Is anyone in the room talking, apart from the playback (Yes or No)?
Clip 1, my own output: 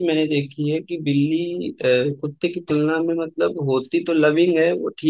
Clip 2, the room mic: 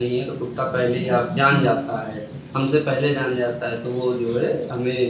Yes